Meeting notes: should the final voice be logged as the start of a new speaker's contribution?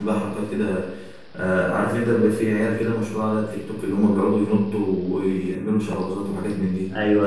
Yes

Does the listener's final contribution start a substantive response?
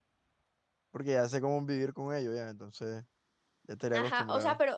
Yes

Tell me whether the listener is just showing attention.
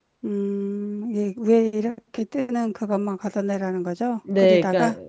No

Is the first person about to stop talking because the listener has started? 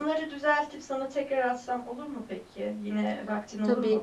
No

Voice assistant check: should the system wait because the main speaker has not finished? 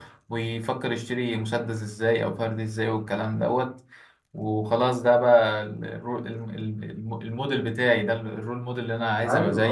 No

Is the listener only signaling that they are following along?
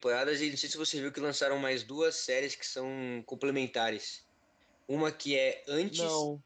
Yes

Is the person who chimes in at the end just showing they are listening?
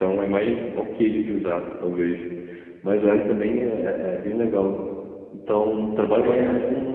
Yes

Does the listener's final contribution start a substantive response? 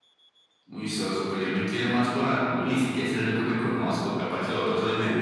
Yes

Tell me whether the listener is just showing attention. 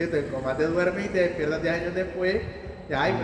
No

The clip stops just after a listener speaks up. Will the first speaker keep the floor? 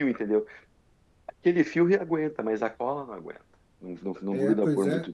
No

